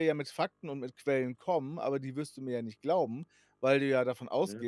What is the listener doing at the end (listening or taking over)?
listening